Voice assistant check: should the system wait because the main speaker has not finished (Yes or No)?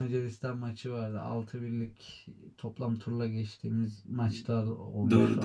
No